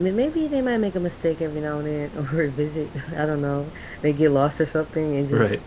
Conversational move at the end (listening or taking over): listening